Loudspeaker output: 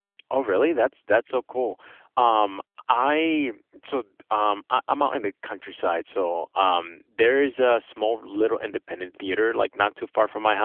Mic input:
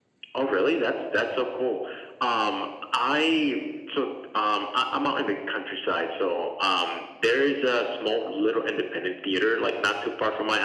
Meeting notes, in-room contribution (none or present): none